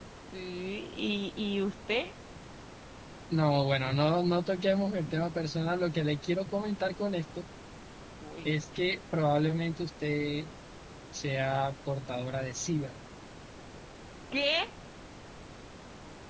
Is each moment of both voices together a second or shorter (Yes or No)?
Yes